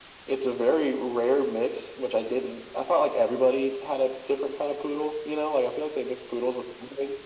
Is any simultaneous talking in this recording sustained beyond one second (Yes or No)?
No